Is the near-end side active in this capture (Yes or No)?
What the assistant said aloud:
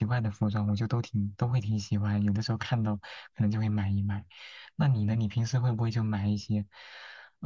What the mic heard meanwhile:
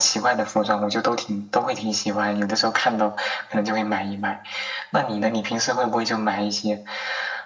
No